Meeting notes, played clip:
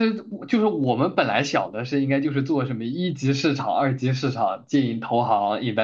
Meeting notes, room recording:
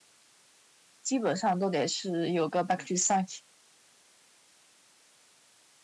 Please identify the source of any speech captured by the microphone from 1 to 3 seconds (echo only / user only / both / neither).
user only